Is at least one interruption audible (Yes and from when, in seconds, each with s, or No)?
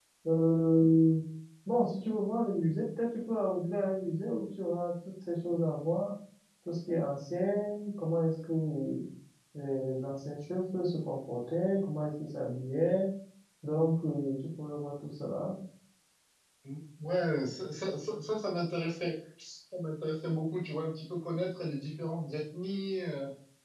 No